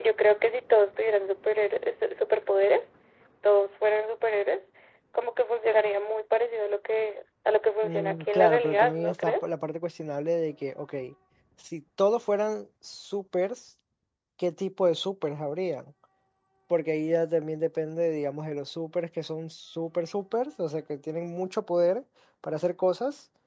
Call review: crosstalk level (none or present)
present